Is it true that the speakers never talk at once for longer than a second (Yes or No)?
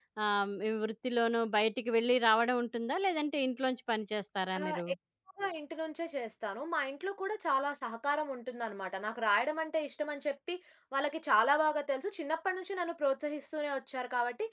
Yes